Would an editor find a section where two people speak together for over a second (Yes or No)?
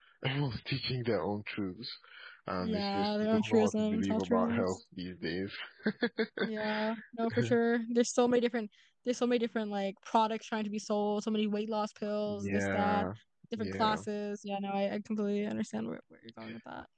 Yes